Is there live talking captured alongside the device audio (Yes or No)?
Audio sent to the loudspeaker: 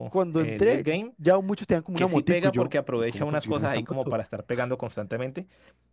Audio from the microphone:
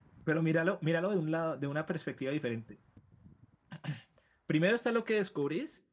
Yes